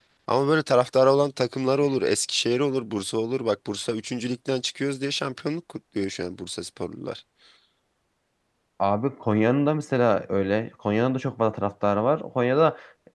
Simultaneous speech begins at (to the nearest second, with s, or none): none